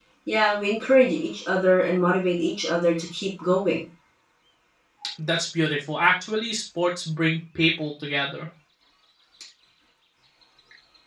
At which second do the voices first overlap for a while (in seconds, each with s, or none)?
none